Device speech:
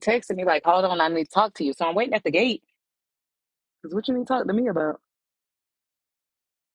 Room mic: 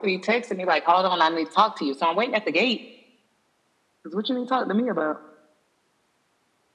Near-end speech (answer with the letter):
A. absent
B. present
A